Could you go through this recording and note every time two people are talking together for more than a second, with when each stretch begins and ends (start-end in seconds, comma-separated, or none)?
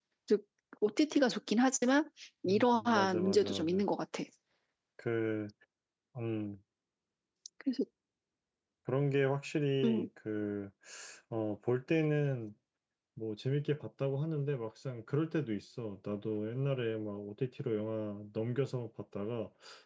2.5-3.9